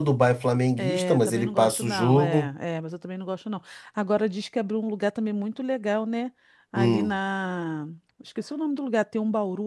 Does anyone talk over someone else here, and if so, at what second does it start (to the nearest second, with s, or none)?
1 s